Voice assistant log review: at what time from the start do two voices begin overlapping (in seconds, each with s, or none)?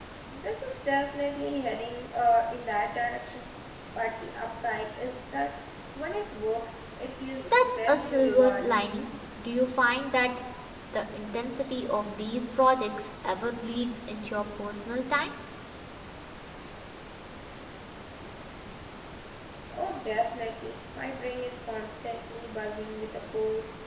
7.4 s